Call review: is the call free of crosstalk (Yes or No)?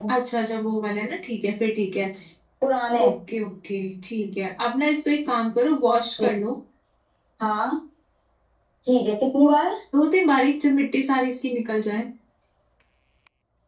Yes